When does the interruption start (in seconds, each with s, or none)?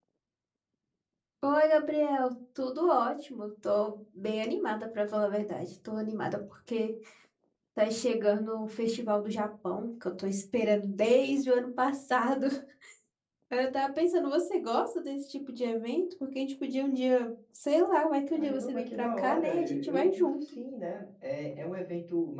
18.3 s